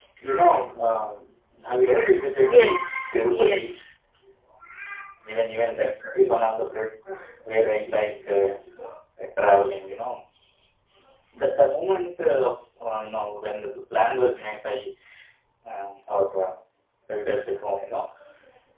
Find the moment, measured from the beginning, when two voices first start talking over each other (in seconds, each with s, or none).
2.4 s